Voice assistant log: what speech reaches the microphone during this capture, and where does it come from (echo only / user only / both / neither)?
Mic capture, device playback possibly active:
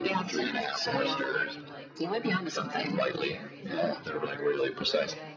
both